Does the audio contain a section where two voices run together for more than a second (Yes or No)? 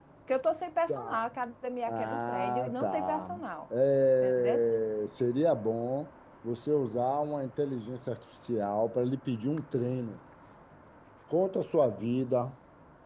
Yes